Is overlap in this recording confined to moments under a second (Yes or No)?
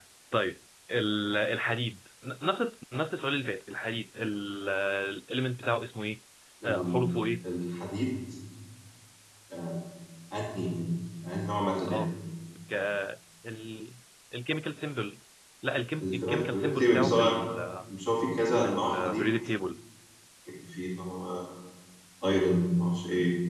No